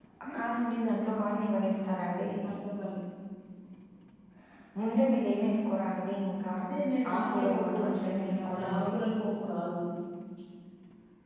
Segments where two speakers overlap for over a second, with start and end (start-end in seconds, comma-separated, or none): 7.1-9.0